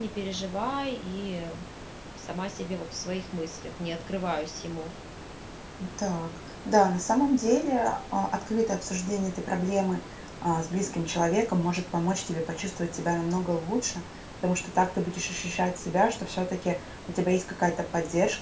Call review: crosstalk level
none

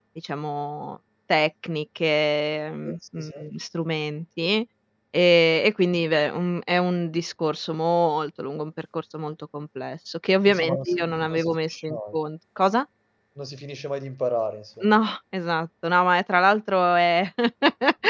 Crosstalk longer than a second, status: present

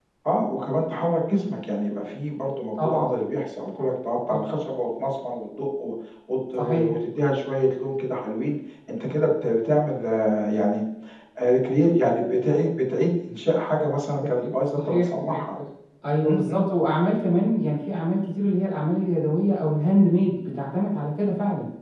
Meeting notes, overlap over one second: present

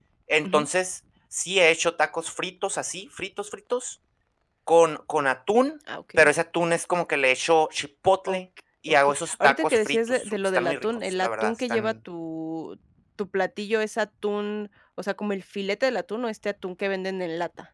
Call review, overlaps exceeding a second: present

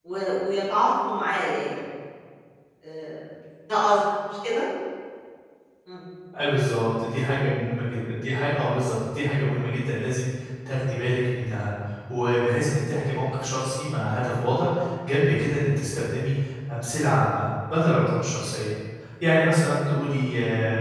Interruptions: none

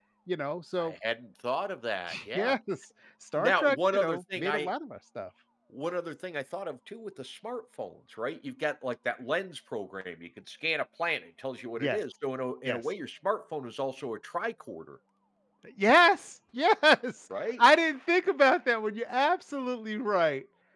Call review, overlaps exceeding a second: present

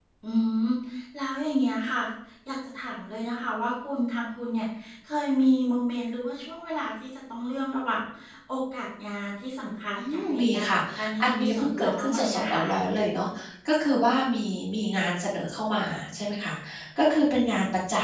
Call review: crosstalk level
present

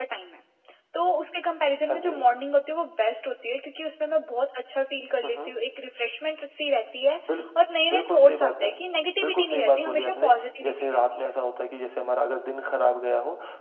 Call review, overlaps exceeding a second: present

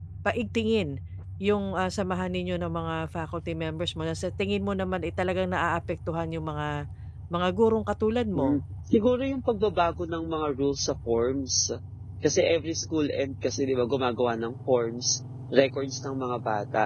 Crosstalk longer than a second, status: none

